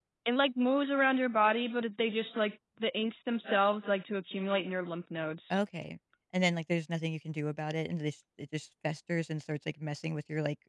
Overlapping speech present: No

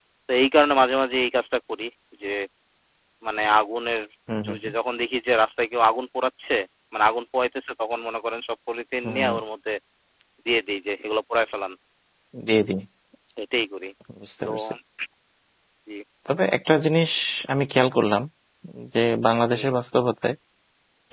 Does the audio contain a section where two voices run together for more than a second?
No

